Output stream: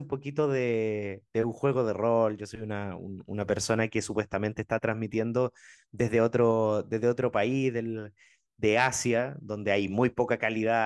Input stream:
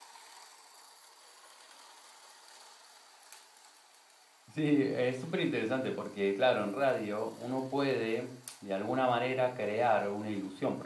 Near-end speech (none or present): present